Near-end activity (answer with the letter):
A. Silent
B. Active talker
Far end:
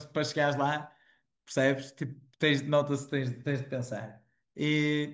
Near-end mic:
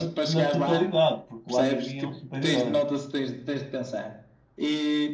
B